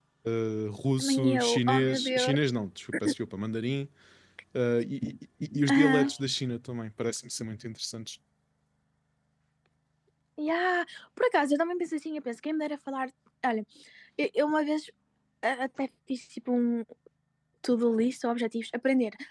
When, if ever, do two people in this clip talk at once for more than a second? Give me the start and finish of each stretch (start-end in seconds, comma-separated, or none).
1.0-2.3